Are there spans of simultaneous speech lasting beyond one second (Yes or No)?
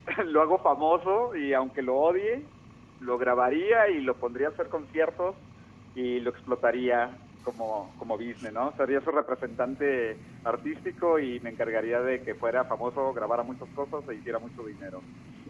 No